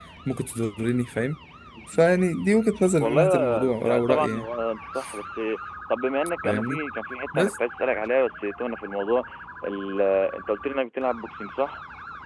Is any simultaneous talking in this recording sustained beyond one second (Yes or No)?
Yes